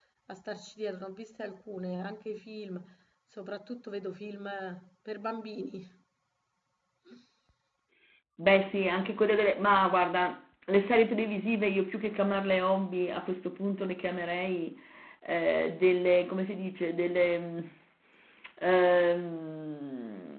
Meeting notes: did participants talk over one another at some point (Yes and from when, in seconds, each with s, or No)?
No